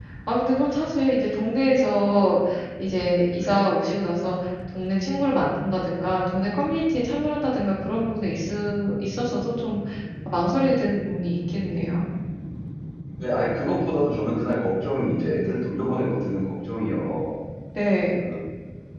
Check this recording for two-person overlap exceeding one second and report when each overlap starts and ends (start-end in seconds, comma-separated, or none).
none